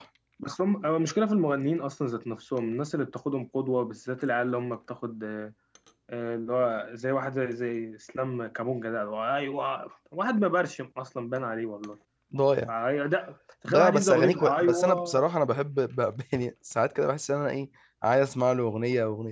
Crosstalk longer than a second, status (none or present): present